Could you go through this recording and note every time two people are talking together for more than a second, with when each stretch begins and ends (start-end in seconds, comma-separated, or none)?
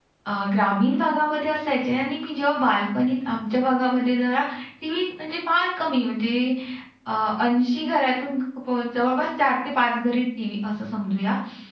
none